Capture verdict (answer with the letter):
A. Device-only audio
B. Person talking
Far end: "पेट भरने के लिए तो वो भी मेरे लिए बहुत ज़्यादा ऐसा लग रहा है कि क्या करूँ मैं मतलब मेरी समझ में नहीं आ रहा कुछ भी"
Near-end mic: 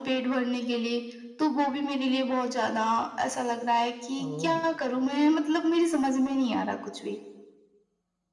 B